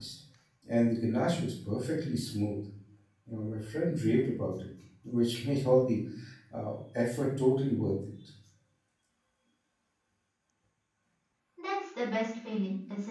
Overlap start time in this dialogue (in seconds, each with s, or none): none